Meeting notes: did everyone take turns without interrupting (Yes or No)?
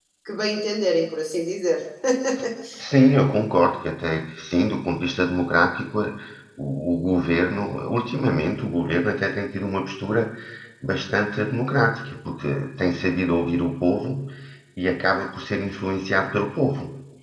Yes